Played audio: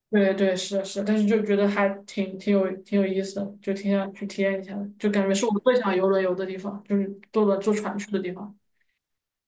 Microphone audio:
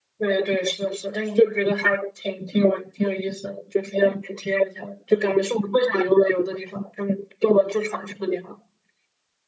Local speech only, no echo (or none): none